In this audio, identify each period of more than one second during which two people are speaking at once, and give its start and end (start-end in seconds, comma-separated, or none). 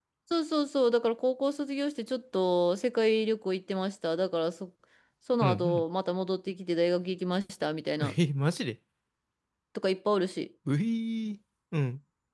none